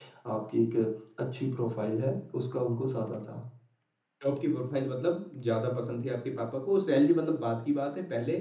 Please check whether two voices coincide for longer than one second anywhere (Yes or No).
No